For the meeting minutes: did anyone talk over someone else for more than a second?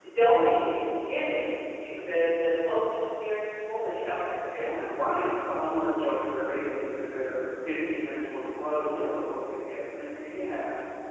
No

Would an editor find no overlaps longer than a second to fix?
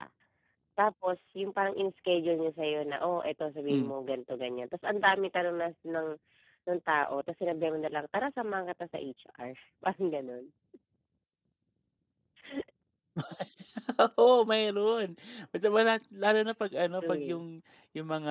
Yes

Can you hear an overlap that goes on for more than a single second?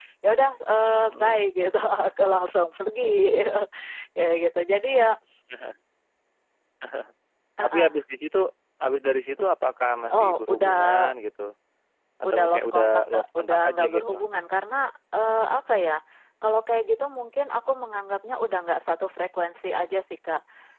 Yes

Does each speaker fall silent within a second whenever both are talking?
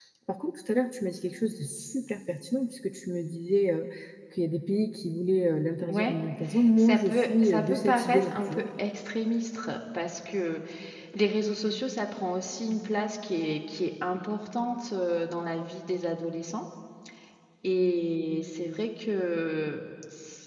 No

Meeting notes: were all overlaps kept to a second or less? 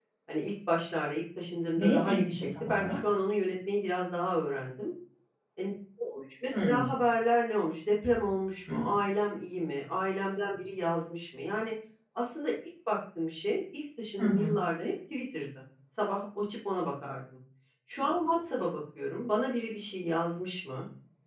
No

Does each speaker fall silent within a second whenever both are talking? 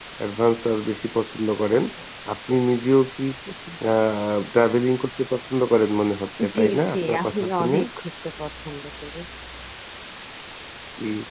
No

